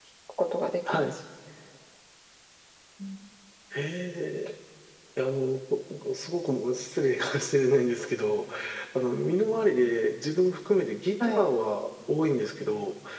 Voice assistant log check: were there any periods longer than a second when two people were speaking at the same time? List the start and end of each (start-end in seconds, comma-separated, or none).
none